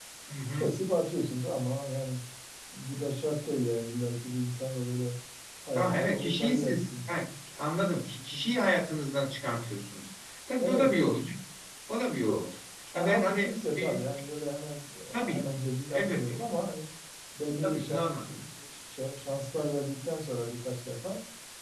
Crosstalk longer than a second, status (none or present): present